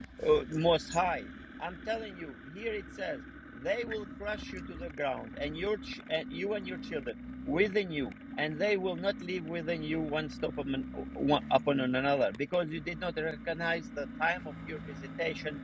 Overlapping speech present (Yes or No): No